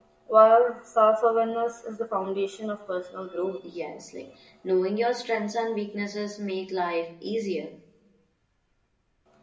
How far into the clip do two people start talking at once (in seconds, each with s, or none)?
none